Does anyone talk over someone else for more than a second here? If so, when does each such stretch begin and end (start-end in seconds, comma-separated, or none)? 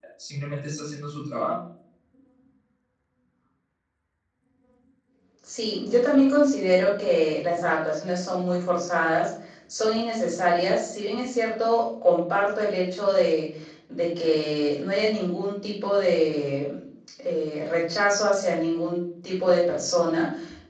none